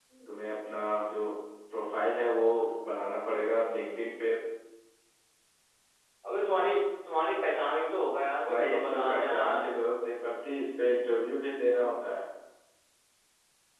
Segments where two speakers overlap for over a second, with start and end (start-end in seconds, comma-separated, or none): 8.5-9.7